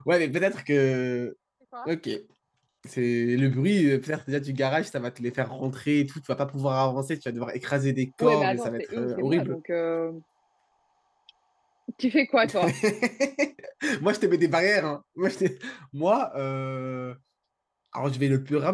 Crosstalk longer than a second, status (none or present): present